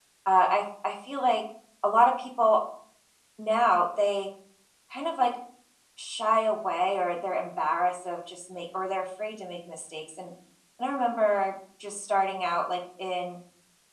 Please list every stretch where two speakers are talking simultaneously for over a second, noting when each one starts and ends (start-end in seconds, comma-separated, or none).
none